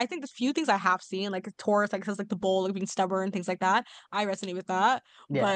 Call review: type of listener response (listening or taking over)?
listening